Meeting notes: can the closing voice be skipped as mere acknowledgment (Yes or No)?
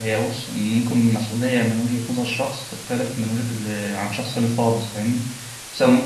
Yes